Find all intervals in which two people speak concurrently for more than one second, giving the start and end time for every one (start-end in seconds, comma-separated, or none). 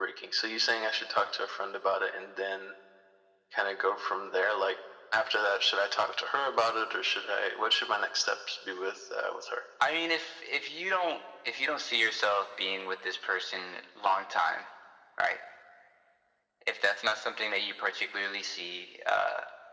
none